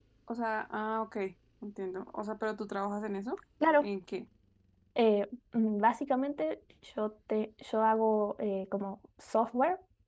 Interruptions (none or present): none